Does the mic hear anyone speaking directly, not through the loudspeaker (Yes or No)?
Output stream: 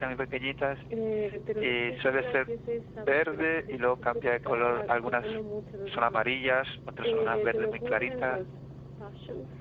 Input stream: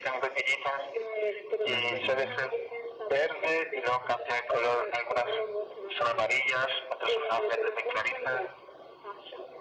Yes